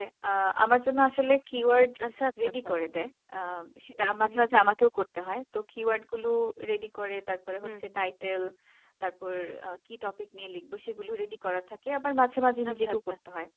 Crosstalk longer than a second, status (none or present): none